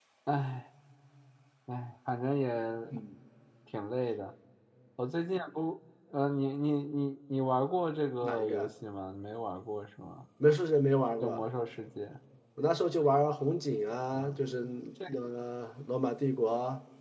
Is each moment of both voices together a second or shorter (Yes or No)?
Yes